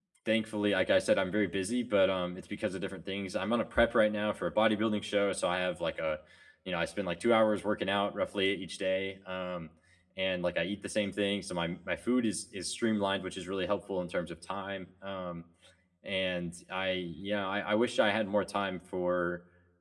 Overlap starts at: none

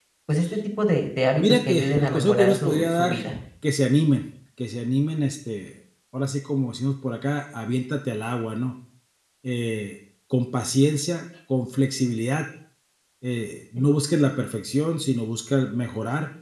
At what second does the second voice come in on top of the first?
1.4 s

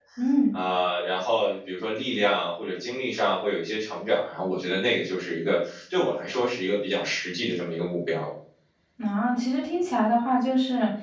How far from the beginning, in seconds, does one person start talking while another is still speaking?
none

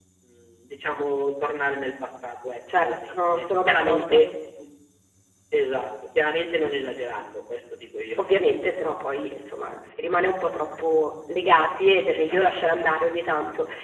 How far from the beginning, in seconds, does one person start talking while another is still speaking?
2.8 s

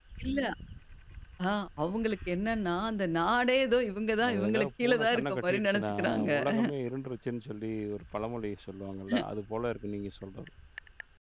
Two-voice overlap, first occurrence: 4.2 s

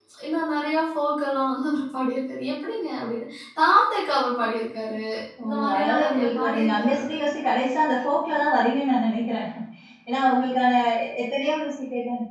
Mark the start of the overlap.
5.5 s

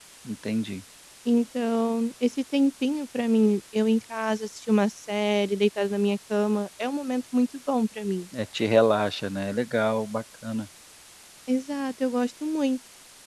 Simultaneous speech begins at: none

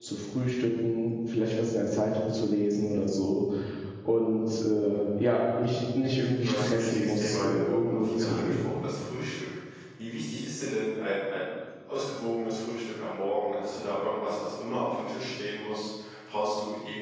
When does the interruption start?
6.4 s

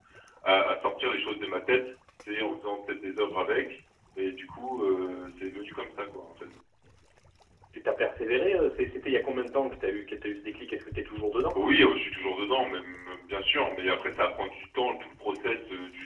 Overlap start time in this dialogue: none

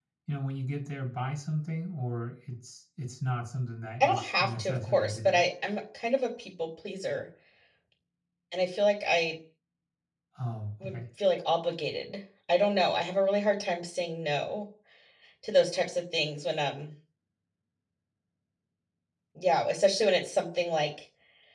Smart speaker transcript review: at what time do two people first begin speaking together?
4.0 s

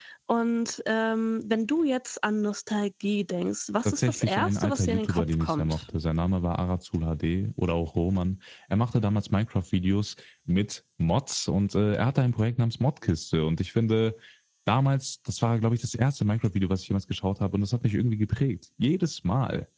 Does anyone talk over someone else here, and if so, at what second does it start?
3.8 s

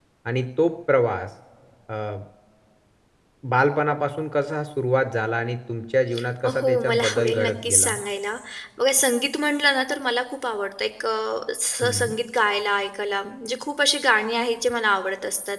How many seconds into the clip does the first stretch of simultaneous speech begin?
6.4 s

